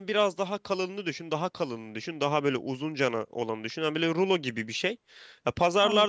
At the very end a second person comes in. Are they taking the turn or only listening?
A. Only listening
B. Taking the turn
A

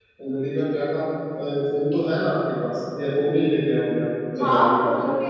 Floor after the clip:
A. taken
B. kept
A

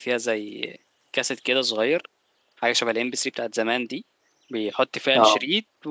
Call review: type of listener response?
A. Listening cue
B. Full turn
A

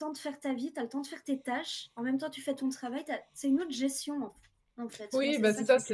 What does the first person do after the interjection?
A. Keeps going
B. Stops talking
B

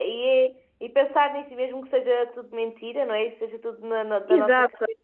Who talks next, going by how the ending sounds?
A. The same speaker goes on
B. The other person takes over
B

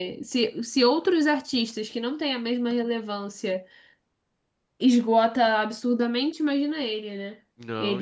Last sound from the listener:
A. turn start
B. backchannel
A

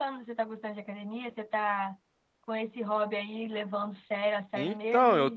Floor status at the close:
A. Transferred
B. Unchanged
A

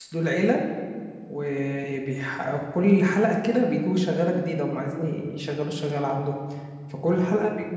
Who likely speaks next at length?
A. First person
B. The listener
A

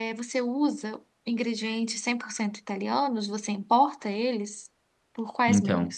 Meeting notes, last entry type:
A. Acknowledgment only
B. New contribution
B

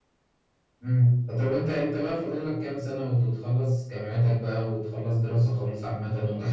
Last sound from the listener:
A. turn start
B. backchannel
A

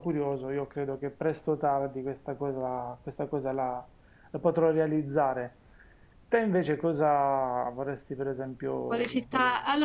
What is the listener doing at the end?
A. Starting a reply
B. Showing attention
A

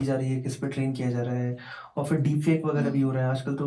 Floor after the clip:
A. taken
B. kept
B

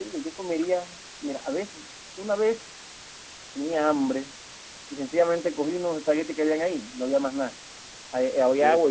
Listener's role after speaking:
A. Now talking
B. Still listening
B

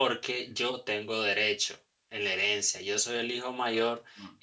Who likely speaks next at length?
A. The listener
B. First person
B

